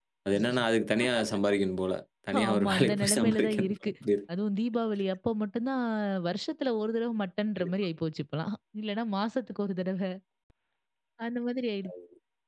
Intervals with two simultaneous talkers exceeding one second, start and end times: 2.4-3.8

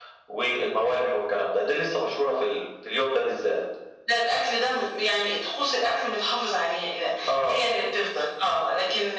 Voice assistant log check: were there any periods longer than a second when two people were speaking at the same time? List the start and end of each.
none

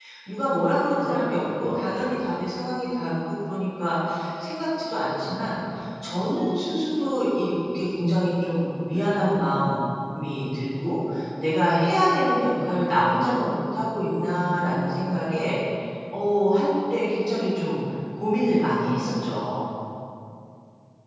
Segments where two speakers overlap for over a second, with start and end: 1.0-2.4

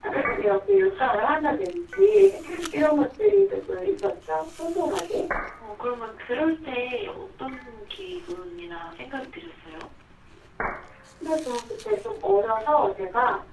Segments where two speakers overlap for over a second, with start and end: none

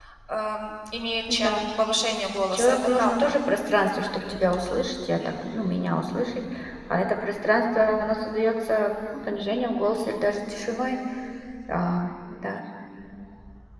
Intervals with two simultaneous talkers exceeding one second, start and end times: 2.1-3.4

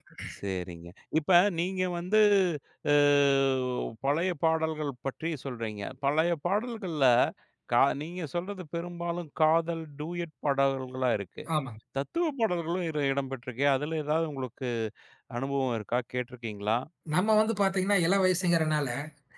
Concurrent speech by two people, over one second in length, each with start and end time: none

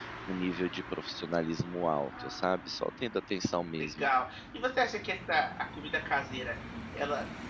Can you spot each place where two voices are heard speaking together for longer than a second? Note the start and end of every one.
none

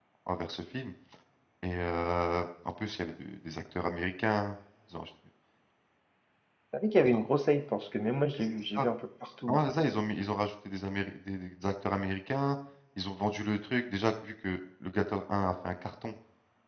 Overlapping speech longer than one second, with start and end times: none

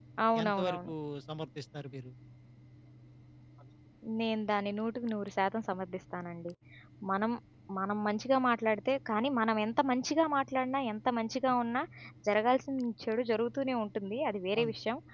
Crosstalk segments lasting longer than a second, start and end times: none

